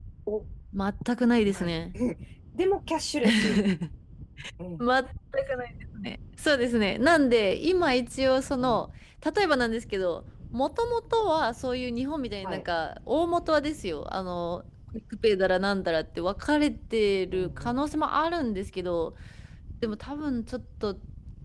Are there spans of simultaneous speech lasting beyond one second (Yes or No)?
No